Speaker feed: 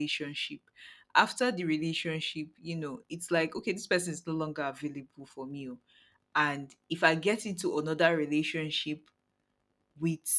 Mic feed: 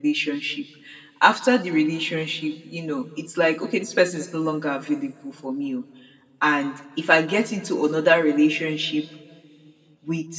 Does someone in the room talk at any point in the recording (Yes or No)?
No